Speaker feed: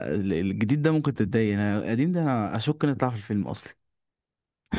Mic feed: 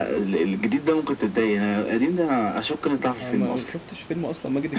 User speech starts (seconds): 3.2 s

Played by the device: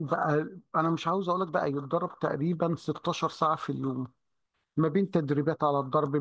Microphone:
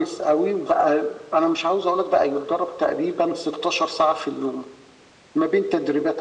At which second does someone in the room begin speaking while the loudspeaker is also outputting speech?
none

